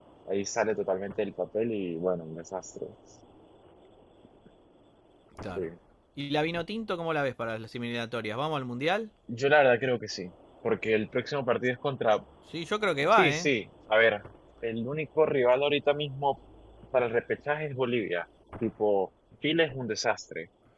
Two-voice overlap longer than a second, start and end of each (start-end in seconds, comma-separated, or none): none